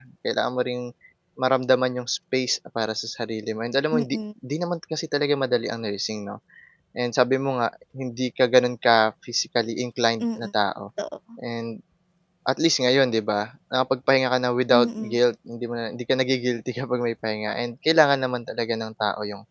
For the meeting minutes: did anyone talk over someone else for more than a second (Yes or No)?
No